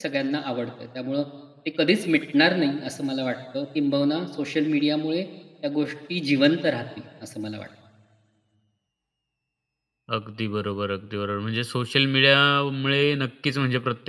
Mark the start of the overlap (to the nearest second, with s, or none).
none